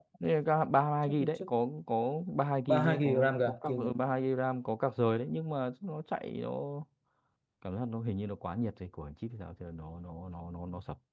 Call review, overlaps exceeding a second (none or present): present